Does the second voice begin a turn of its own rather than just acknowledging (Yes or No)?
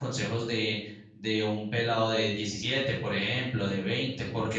No